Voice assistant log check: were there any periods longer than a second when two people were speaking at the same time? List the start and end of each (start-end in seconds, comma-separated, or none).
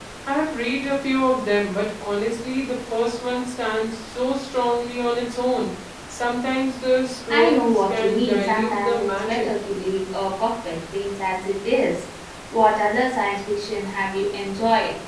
7.3-9.5